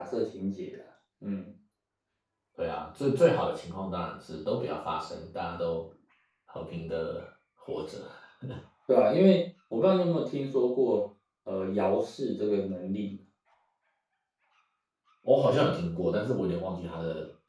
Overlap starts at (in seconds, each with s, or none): none